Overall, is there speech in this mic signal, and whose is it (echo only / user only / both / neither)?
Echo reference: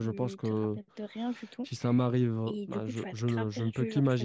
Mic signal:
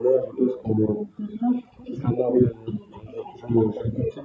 echo only